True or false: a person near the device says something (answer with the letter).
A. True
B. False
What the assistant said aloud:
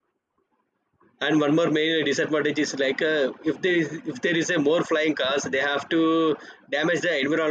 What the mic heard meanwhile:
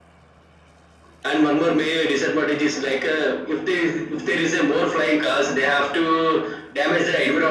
B